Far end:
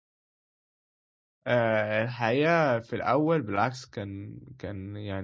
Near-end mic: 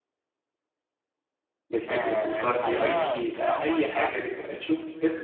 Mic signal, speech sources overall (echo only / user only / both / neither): both